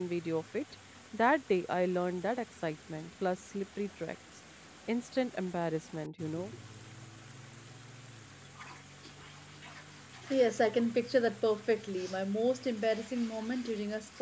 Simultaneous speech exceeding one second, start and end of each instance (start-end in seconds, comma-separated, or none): none